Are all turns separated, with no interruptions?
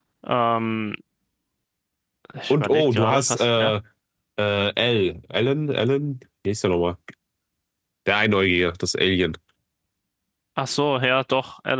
No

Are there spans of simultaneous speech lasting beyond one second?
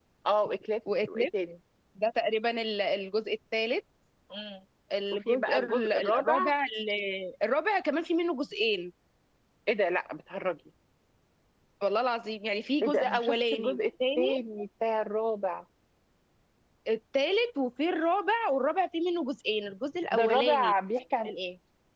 Yes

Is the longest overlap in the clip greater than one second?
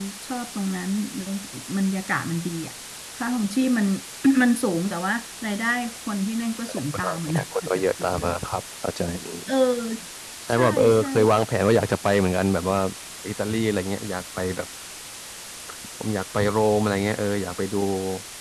Yes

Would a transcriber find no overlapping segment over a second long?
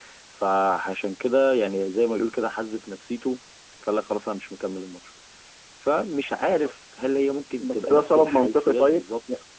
No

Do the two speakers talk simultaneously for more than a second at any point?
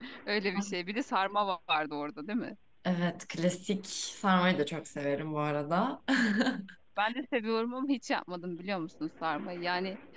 No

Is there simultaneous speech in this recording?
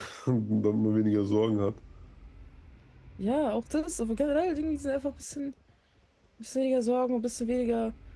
No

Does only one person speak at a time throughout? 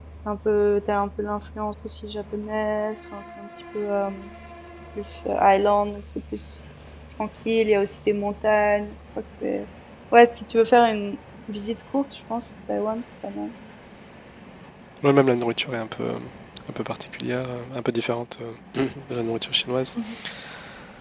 Yes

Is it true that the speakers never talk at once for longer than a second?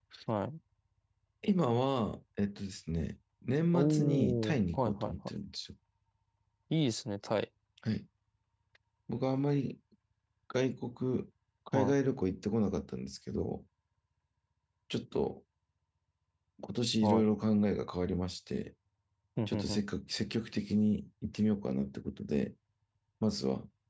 No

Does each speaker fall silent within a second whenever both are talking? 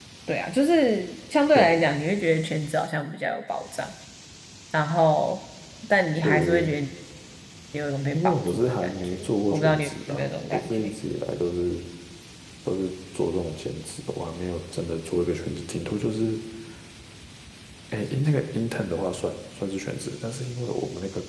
No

